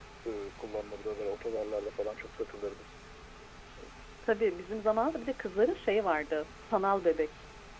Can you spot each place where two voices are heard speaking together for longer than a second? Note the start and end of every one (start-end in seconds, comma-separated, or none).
none